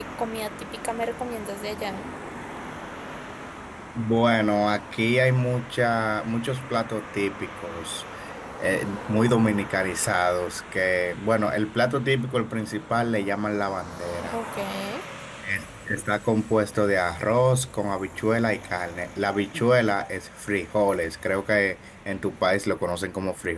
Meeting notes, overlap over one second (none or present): none